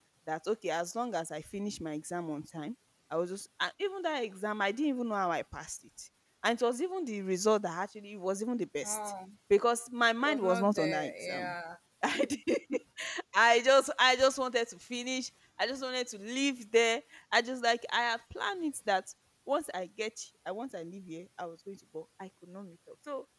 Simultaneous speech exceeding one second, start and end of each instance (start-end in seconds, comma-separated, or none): 10.2-11.5